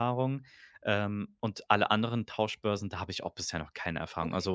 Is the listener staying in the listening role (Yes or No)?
Yes